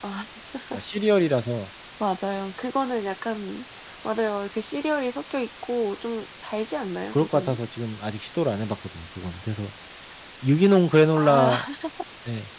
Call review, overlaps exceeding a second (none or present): none